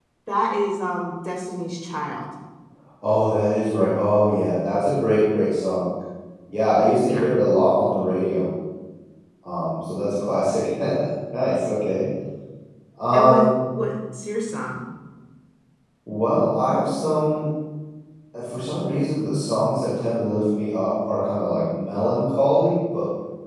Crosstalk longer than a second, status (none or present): none